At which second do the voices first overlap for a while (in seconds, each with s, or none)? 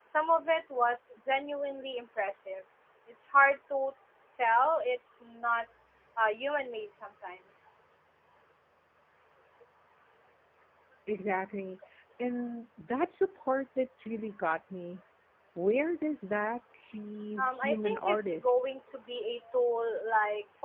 17.4 s